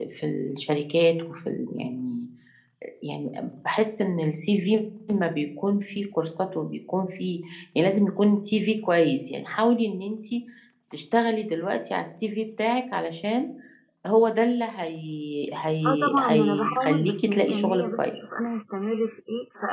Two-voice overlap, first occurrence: 15.8 s

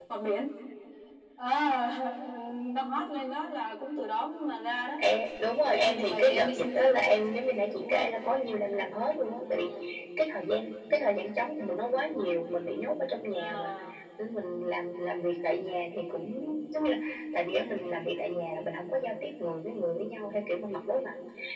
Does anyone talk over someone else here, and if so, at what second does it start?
5.7 s

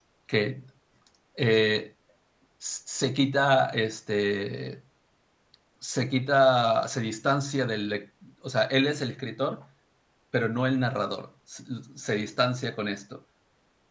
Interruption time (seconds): none

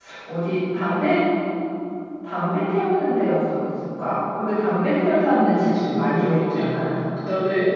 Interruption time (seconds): 5.5 s

